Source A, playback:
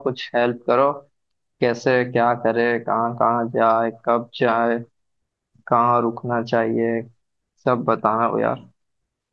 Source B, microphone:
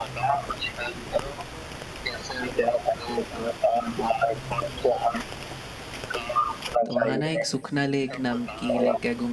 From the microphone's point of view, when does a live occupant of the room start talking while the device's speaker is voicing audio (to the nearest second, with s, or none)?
7 s